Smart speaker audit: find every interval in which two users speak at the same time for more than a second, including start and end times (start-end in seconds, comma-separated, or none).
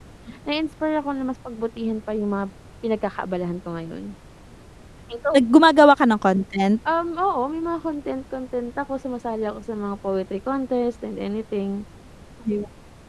none